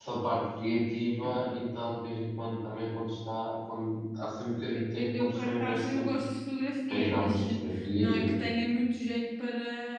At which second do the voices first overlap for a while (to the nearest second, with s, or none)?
5 s